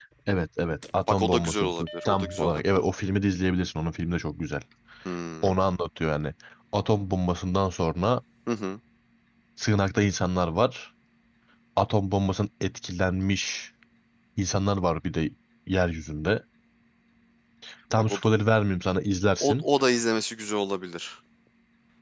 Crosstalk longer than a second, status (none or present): present